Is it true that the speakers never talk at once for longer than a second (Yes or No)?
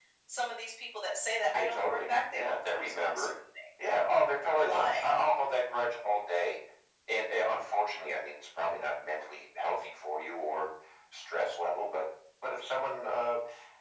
No